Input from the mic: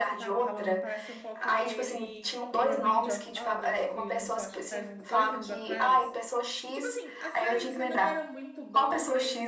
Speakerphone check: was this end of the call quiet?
No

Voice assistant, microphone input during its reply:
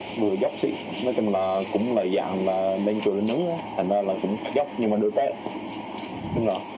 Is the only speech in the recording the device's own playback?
Yes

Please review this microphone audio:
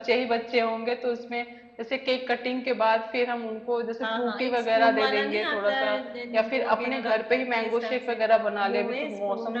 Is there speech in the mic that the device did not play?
No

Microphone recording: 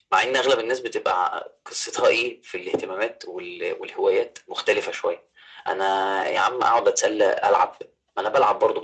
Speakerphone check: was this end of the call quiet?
Yes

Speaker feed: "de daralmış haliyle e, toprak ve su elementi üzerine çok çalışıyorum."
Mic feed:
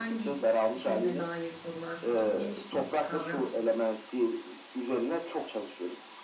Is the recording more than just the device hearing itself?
Yes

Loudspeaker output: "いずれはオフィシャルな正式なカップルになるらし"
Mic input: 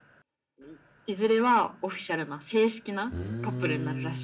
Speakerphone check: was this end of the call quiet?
No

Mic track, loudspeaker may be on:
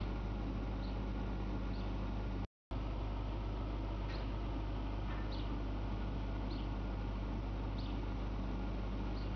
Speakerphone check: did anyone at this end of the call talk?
No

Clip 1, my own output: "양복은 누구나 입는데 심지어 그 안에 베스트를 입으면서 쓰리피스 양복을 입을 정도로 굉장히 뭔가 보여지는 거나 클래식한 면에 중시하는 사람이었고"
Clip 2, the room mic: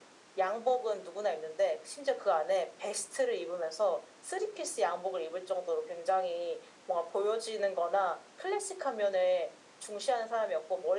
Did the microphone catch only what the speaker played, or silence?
Yes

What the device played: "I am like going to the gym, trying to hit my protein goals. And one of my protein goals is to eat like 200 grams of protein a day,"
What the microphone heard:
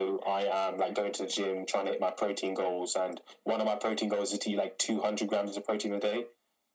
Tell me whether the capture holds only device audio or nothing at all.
Yes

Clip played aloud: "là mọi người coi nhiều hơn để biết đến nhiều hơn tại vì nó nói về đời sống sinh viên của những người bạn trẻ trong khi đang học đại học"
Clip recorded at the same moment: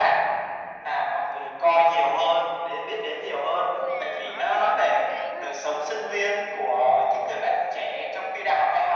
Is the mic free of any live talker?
No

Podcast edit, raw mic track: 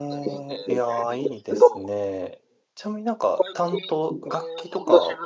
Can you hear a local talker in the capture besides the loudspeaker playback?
Yes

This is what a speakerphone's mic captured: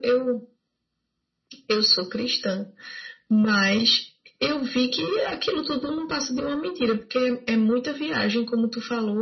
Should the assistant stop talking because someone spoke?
No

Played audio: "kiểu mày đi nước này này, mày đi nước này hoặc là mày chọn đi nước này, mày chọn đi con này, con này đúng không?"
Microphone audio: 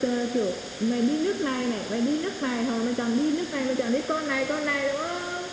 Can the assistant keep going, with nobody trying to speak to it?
Yes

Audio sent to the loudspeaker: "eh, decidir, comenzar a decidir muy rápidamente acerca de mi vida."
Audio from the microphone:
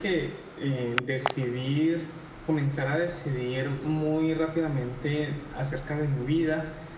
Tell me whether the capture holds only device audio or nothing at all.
Yes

